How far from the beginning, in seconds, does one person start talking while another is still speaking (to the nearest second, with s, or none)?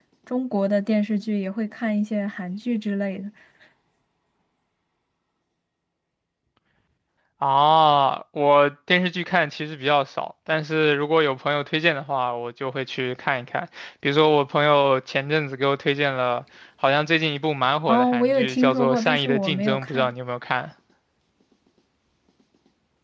18 s